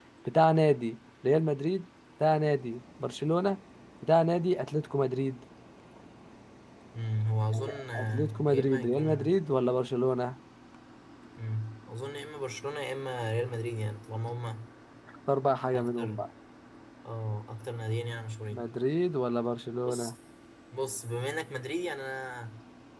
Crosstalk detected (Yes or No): Yes